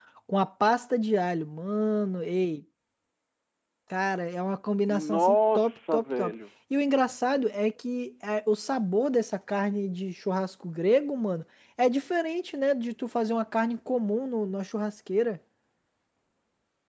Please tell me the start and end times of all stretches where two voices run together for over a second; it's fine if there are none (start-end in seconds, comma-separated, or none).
4.9-6.3